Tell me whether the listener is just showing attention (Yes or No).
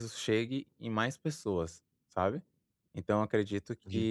Yes